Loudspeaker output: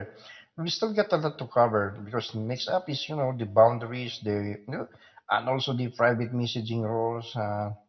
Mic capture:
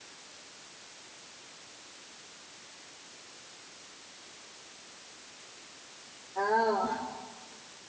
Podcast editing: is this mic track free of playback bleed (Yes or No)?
Yes